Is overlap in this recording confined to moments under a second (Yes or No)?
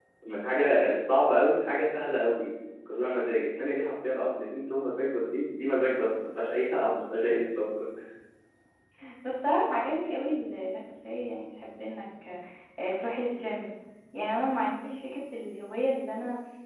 Yes